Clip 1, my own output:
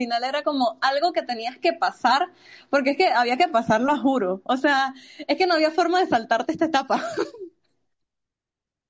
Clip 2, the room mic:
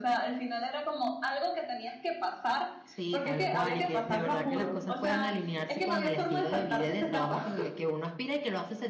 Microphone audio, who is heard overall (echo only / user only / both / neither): both